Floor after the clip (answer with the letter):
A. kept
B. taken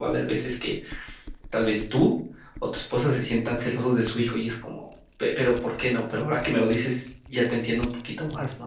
B